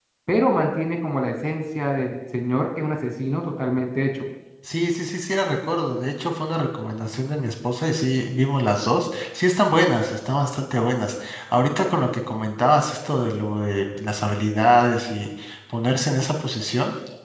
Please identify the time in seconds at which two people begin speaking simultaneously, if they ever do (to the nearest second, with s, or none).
none